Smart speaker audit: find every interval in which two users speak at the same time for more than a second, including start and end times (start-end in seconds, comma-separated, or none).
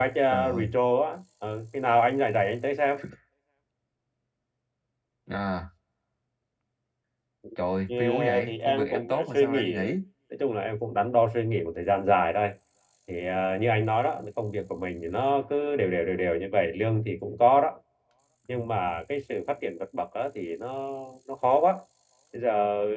8.0-9.7